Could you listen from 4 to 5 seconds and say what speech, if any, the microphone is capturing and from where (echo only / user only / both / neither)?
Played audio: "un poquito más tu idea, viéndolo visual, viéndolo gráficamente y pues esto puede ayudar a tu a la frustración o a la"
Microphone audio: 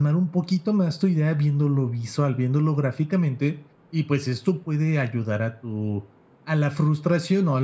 echo only